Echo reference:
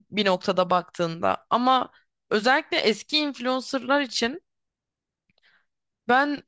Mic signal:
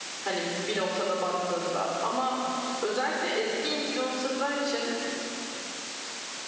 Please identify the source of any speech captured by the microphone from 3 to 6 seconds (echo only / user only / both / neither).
echo only